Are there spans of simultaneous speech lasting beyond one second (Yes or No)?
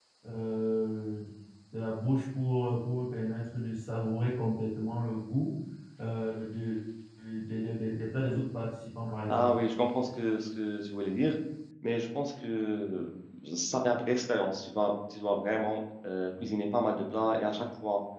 No